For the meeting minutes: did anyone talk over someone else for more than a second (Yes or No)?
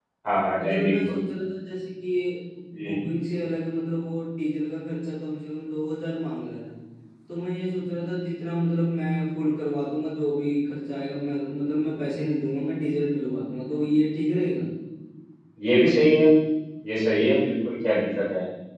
No